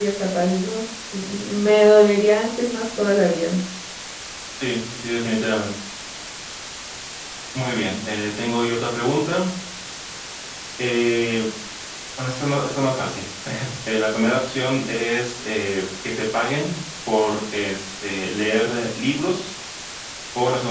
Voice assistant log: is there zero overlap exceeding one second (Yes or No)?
Yes